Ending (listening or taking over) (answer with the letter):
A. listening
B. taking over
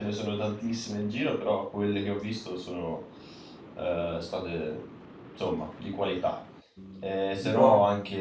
A